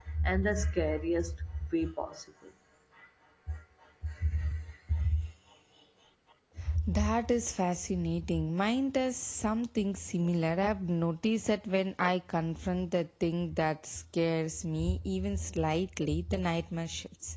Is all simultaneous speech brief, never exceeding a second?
Yes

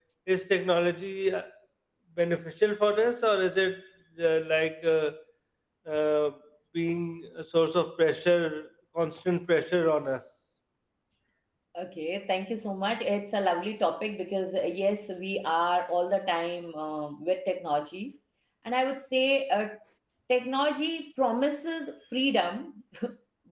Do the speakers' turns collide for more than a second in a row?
No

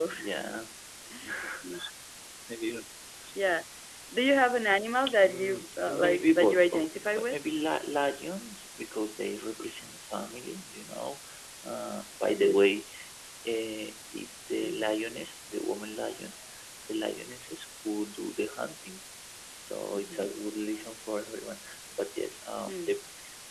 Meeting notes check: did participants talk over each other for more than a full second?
Yes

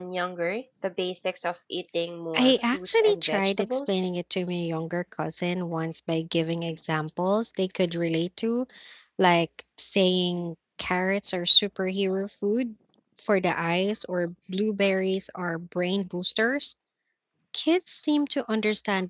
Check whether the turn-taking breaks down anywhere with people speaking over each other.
Yes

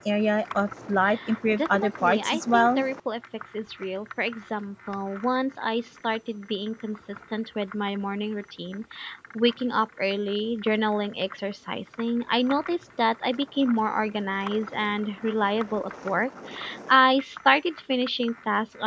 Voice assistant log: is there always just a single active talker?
No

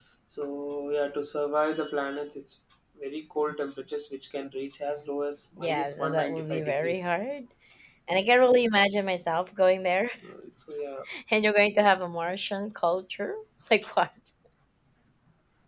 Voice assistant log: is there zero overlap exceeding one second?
No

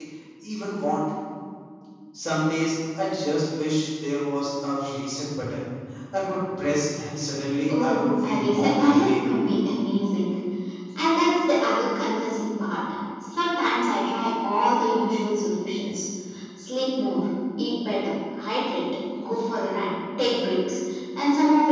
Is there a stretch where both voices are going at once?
Yes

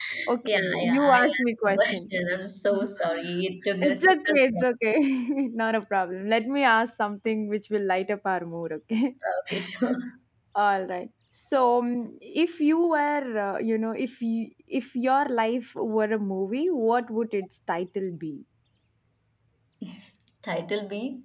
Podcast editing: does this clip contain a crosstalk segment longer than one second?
Yes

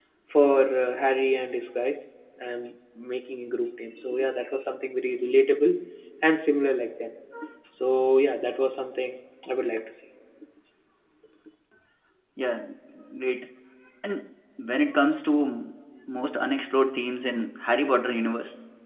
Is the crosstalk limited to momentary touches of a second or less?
Yes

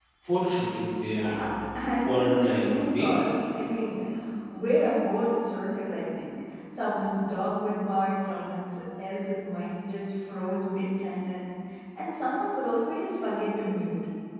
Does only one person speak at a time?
No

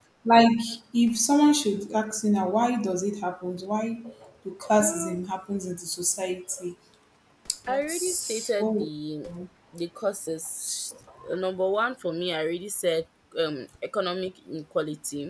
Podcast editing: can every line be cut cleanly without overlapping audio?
No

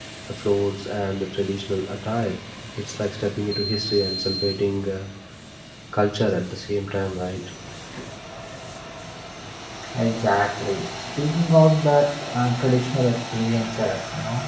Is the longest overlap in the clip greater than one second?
No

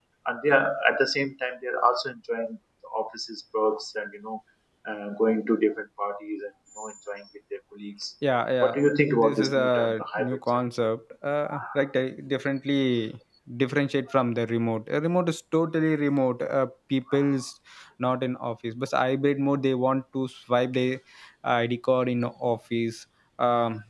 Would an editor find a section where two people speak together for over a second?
Yes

